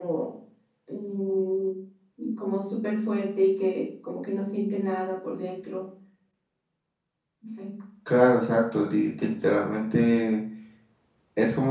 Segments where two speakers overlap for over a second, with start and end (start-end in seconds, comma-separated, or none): none